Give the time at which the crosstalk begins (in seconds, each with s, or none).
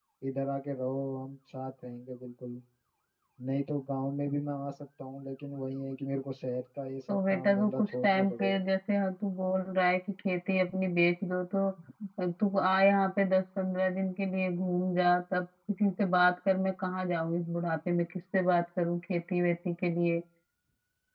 7.1 s